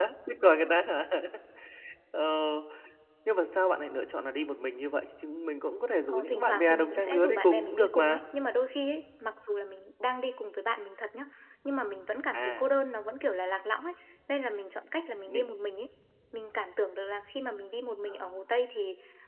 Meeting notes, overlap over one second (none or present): present